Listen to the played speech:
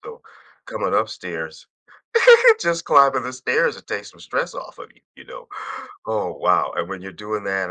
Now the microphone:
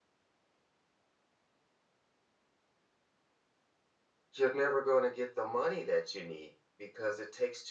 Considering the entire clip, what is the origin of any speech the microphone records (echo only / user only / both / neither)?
user only